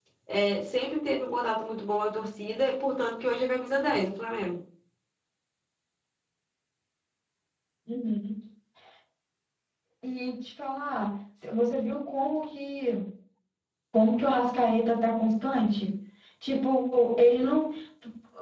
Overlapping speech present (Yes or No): No